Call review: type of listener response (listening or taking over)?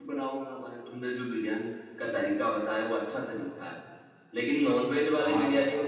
listening